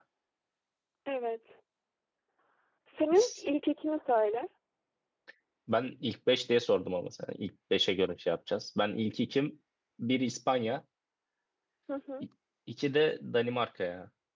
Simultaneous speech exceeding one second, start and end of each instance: none

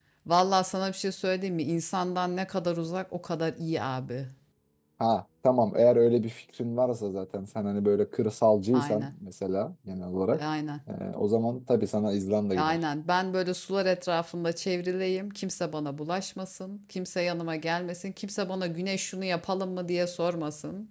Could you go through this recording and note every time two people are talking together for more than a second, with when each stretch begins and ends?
none

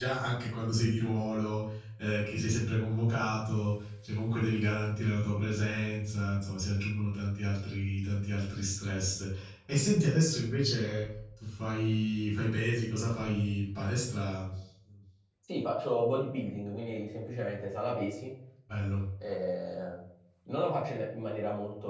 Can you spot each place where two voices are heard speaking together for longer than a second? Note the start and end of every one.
none

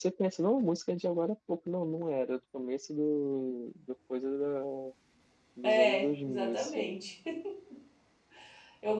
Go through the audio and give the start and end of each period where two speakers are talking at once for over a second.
5.6-6.9

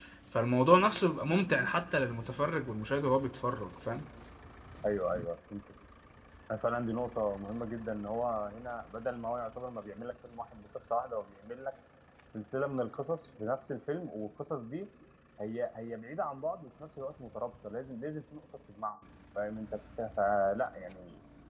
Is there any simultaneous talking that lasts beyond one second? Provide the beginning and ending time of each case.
none

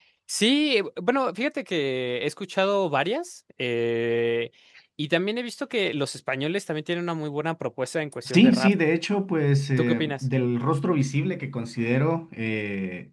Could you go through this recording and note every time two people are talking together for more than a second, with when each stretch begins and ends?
none

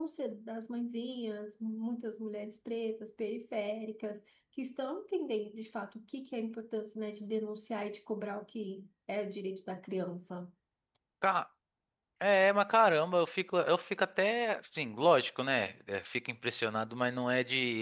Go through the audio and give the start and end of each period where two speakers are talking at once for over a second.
none

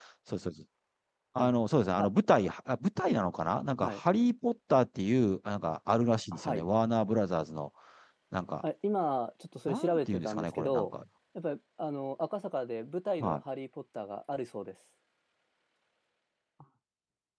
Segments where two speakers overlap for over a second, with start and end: 9.7-10.9

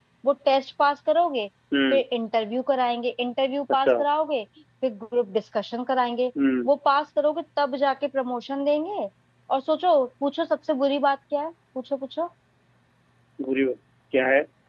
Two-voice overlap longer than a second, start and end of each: none

